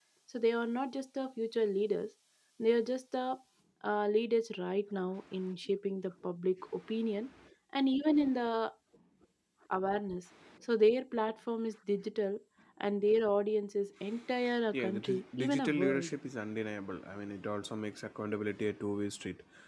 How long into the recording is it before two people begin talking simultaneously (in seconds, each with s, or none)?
14.7 s